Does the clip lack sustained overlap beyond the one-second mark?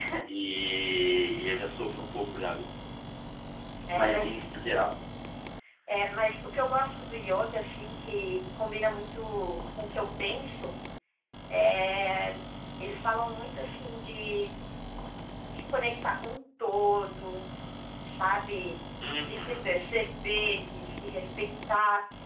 Yes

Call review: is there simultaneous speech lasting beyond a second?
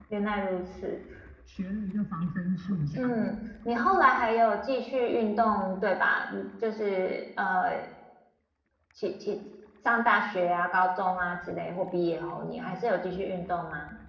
No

